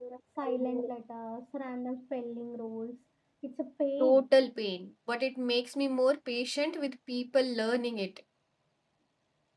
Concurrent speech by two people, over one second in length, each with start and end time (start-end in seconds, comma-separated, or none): none